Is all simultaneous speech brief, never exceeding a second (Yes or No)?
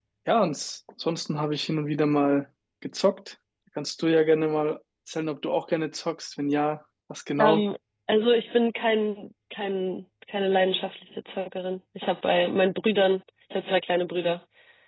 Yes